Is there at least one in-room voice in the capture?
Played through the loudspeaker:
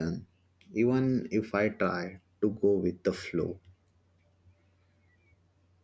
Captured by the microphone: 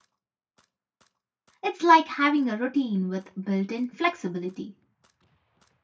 Yes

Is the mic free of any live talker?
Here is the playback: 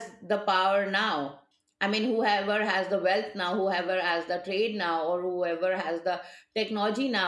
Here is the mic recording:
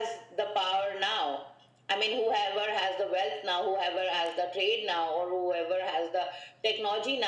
Yes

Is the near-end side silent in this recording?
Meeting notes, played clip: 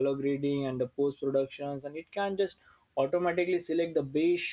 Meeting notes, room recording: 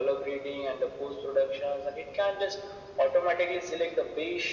Yes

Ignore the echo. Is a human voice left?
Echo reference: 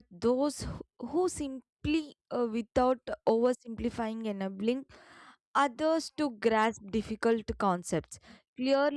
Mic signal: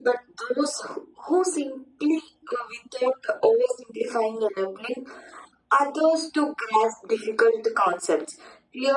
No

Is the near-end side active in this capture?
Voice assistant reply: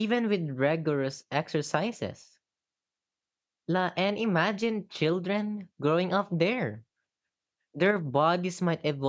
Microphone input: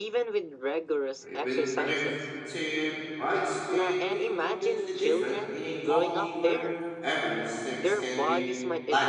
Yes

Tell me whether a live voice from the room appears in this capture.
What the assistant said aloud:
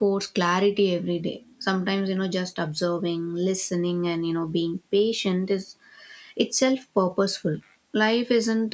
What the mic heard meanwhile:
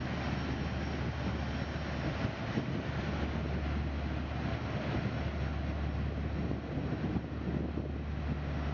No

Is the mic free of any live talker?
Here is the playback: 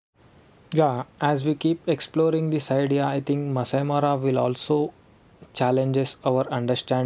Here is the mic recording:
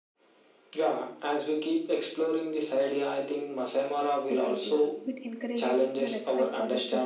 No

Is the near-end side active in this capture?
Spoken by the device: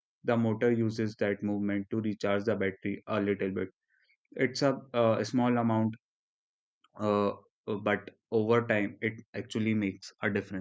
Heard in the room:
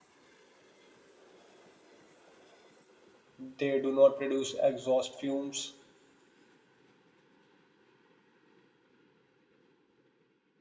Yes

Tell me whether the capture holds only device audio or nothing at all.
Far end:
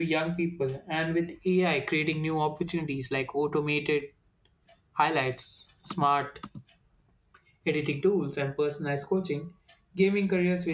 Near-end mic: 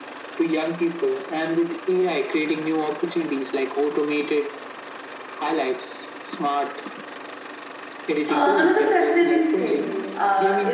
No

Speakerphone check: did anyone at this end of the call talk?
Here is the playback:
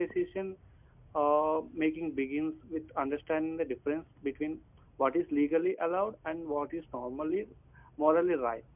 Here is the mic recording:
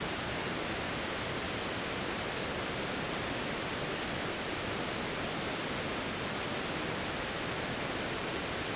No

